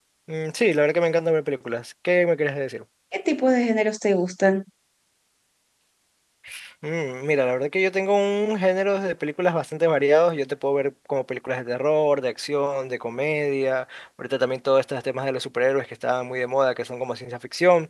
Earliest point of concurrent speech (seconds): none

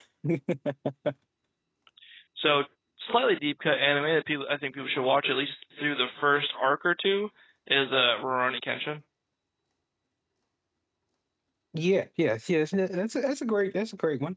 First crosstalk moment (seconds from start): none

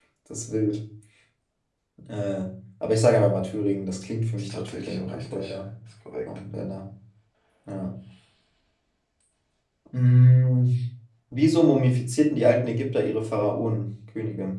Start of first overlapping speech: 4 s

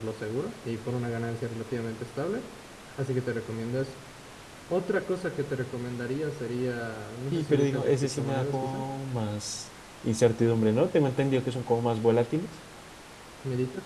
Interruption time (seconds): 7 s

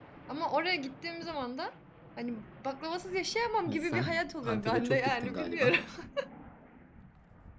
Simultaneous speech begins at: 4 s

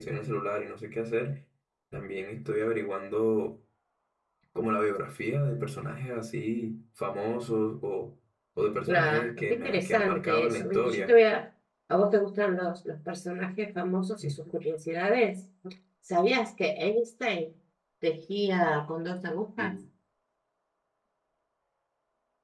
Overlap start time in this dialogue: 9 s

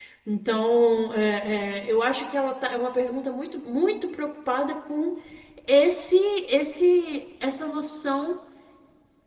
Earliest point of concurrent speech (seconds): none

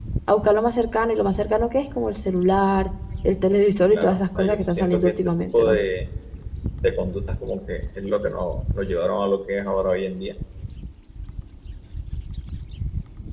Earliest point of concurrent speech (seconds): 4 s

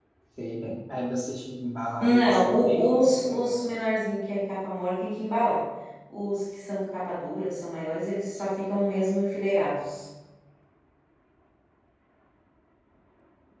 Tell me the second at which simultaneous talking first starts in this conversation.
2 s

